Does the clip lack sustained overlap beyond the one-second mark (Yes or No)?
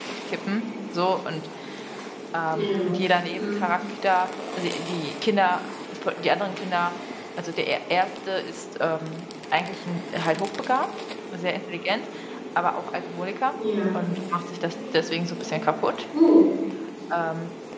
Yes